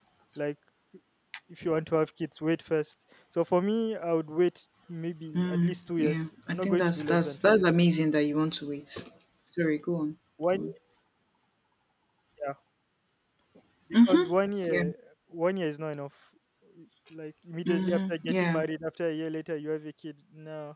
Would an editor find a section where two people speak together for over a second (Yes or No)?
Yes